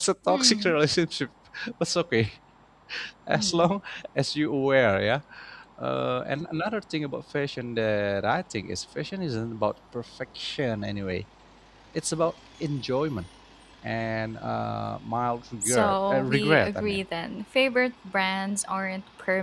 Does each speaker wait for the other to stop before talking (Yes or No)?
No